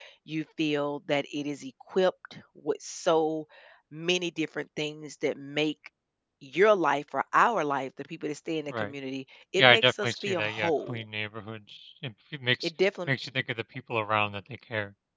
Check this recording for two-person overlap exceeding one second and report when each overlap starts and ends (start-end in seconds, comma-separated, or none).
9.6-11.0